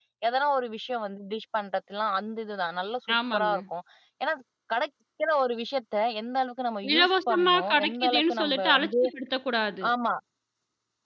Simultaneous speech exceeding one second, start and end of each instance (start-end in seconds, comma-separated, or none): 6.9-8.9